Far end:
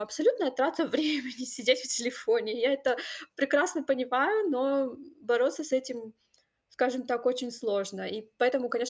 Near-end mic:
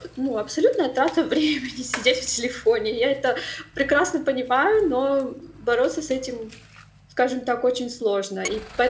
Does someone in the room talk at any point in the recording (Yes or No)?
No